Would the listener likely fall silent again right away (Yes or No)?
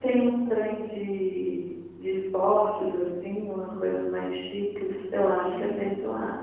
Yes